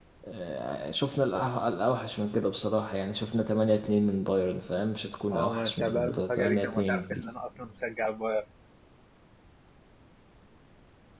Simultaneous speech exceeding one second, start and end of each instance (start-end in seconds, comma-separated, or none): 5.3-7.2